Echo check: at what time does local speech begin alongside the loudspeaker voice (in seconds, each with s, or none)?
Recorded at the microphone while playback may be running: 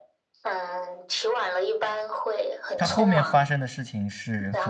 2.8 s